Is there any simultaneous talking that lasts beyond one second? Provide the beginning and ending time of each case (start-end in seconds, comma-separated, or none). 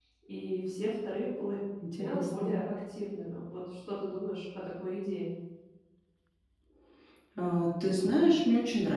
none